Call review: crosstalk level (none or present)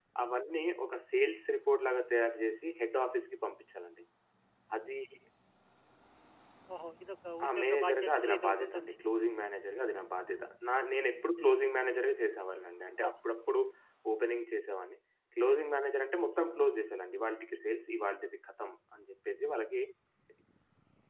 present